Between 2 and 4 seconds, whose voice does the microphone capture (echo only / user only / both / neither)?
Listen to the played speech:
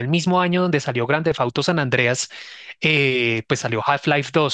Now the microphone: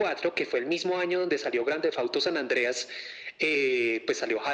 echo only